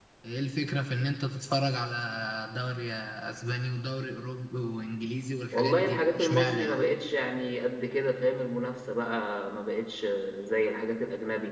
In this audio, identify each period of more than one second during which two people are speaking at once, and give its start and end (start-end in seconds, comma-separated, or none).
5.5-6.8